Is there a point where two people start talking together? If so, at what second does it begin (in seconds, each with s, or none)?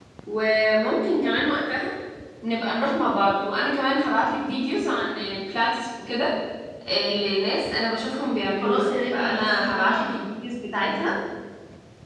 8.6 s